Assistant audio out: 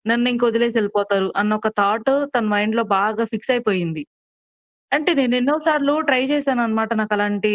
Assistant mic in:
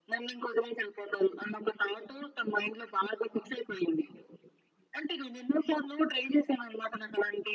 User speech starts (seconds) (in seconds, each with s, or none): none